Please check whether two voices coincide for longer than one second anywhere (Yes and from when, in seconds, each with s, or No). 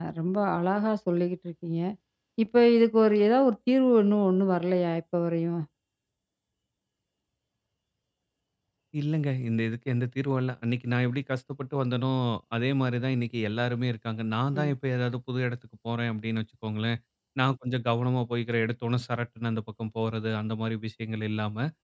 No